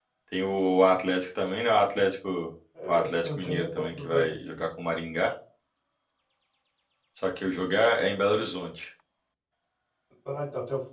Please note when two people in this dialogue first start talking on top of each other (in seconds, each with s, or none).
2.8 s